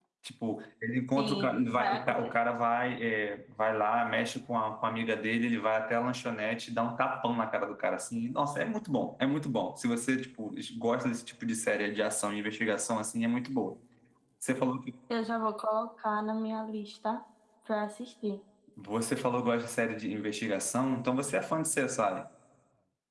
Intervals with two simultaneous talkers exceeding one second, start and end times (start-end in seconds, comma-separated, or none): 1.2-2.4